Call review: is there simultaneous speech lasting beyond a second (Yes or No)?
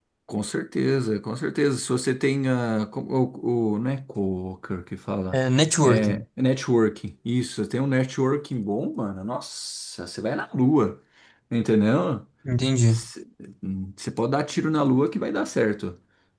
No